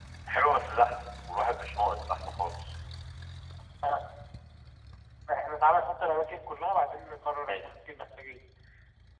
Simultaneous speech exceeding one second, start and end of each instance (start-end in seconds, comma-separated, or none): none